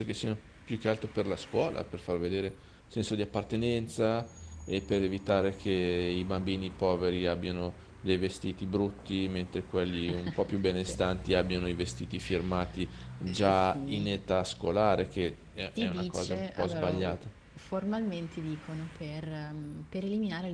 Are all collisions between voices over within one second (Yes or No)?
No